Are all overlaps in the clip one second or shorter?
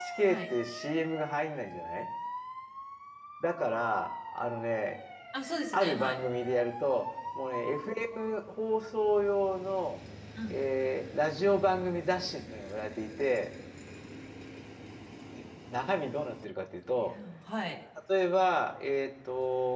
Yes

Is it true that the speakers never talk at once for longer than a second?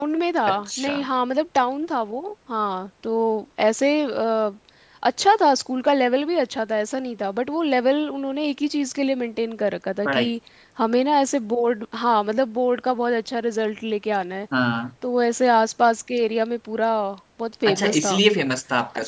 Yes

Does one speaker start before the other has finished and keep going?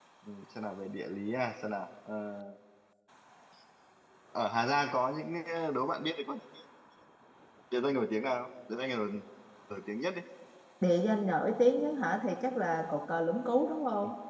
No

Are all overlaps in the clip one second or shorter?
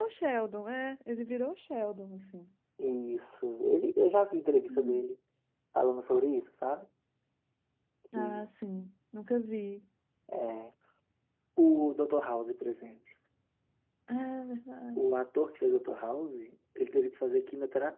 Yes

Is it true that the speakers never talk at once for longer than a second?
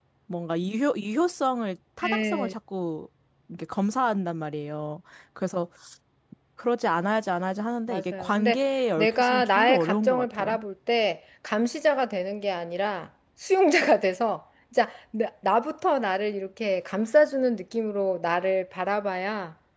No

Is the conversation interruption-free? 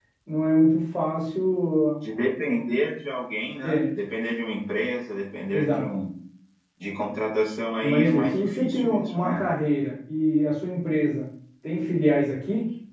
No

